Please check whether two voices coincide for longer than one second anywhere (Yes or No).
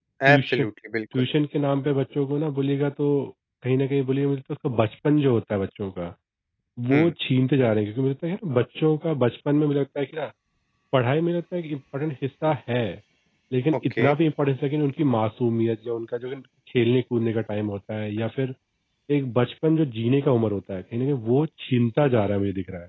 No